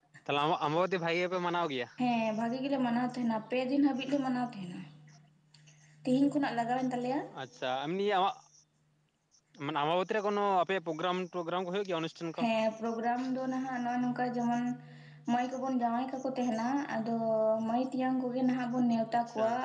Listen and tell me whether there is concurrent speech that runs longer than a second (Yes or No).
No